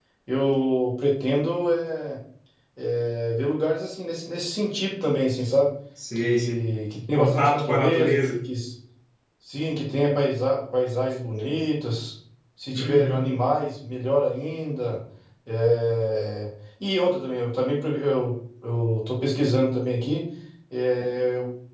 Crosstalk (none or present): present